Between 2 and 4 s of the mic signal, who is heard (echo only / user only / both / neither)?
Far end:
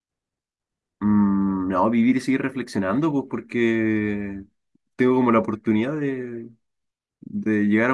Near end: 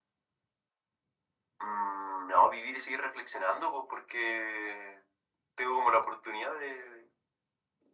echo only